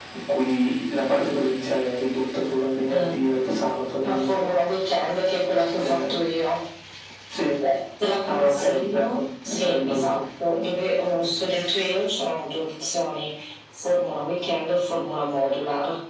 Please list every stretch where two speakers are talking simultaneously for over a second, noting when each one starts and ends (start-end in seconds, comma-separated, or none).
8.2-10.2